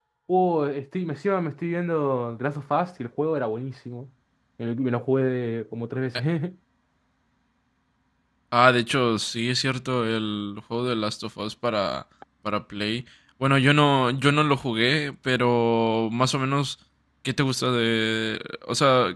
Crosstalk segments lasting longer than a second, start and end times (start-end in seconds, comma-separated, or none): none